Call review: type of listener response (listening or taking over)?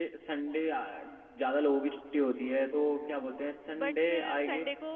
taking over